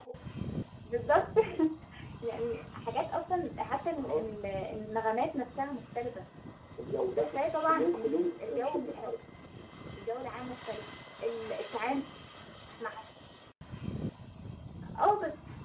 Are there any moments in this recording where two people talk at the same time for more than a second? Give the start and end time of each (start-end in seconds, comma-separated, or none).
7.7-9.1